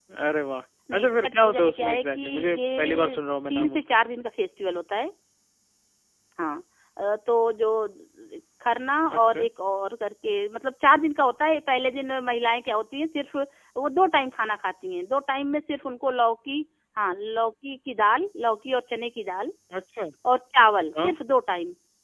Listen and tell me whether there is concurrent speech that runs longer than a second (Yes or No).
Yes